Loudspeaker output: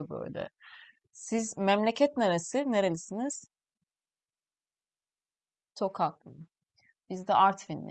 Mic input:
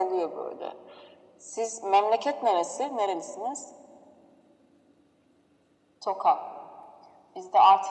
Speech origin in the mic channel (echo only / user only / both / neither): echo only